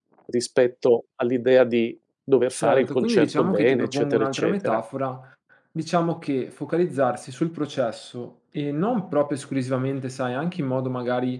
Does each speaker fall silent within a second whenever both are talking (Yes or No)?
No